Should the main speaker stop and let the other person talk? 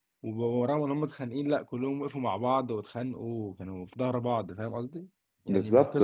No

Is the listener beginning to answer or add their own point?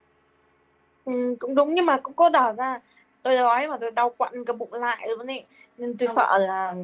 No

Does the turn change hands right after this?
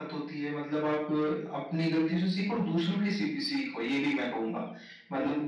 Yes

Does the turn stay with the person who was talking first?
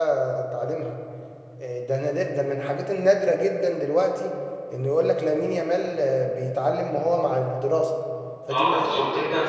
No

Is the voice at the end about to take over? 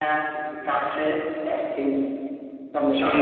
Yes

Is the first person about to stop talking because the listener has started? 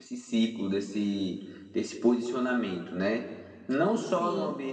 No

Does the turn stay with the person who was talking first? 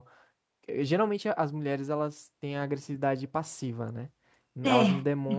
Yes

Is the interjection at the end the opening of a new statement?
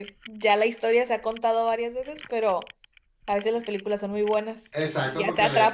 Yes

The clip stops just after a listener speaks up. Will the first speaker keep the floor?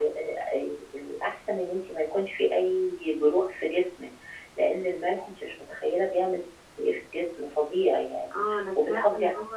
No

